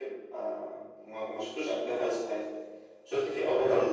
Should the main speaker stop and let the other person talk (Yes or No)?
No